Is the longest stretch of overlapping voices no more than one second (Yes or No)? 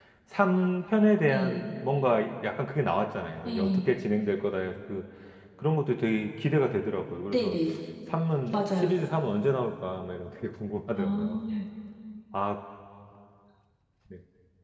Yes